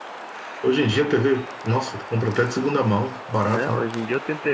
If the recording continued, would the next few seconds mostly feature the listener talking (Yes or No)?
Yes